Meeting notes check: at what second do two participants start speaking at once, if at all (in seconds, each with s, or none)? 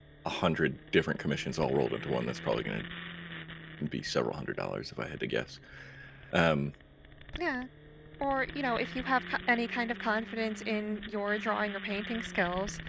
none